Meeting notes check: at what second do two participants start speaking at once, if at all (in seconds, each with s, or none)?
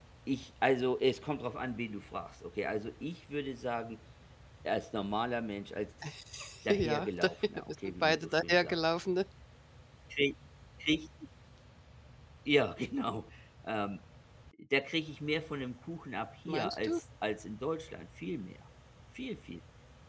6.7 s